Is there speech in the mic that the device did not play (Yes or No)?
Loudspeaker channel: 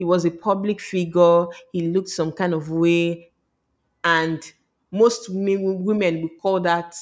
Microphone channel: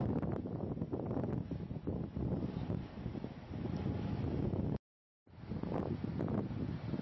No